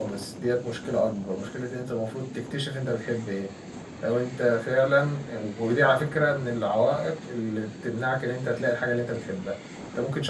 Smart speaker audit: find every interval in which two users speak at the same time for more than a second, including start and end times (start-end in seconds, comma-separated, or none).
none